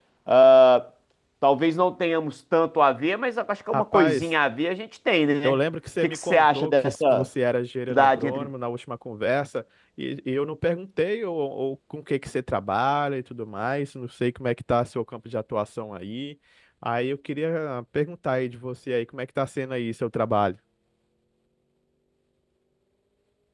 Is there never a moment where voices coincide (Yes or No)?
No